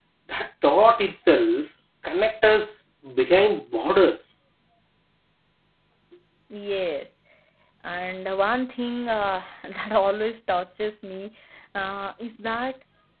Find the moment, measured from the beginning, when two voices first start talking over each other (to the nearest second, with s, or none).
none